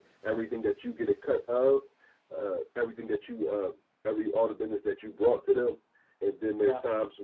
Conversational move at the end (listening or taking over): listening